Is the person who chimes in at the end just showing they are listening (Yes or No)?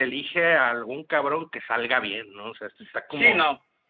No